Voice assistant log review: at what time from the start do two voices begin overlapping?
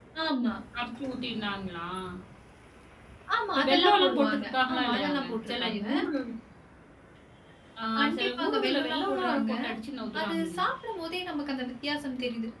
3.5 s

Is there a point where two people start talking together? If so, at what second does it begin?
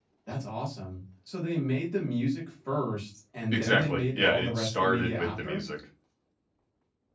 3.5 s

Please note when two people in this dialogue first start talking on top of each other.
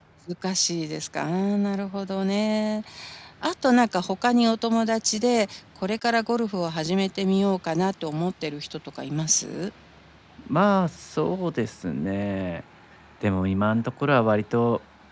none

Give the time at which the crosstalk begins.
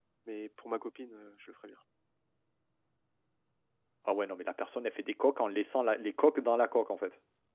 none

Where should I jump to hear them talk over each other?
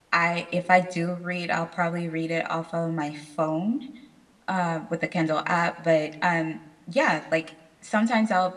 none

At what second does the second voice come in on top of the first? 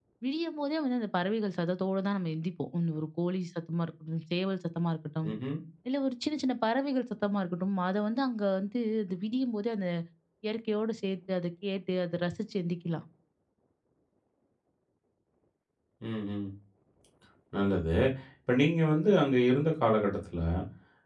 none

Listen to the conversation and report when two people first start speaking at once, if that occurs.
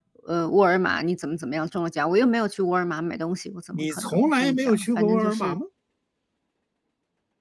3.7 s

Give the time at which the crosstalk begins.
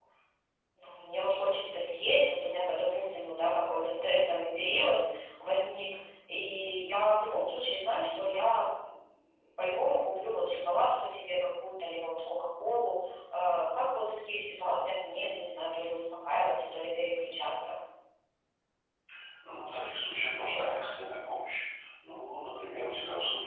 none

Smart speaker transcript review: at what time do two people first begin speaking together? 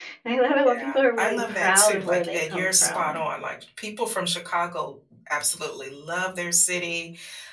0.5 s

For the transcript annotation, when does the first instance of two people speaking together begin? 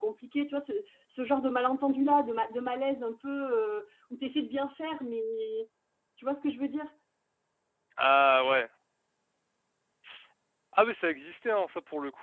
none

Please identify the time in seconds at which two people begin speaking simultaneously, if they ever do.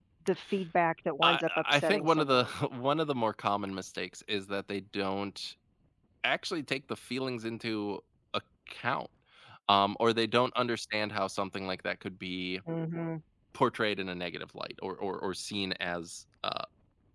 1.2 s

